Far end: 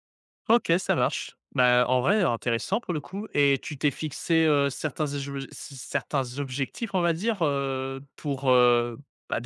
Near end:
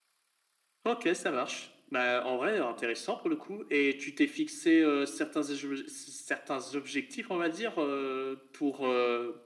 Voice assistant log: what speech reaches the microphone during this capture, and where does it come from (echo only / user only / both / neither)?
echo only